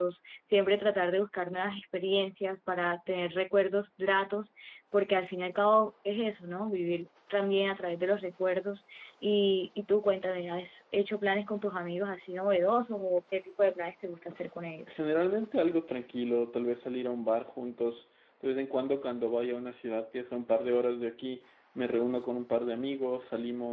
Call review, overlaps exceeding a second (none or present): none